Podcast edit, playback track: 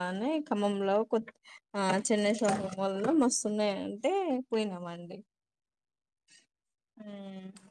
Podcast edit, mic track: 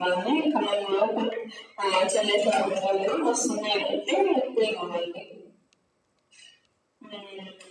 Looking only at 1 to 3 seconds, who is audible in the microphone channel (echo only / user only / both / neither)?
echo only